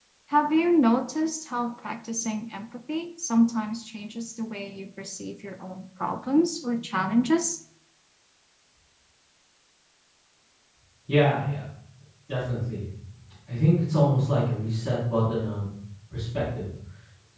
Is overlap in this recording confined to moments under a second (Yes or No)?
Yes